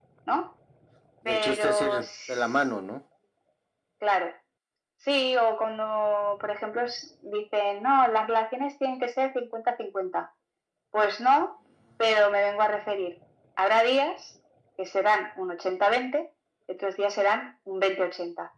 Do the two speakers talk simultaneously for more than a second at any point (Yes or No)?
Yes